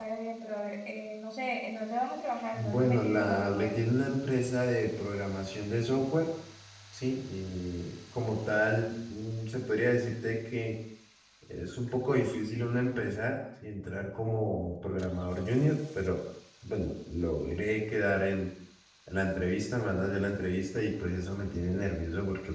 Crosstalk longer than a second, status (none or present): present